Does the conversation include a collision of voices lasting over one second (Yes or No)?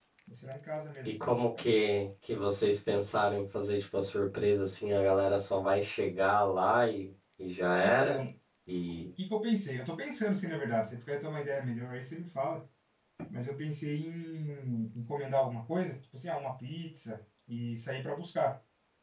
No